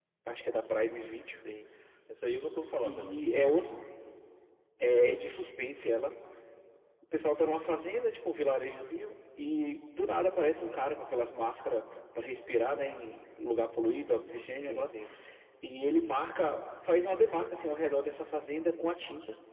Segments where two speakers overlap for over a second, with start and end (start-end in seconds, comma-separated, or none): none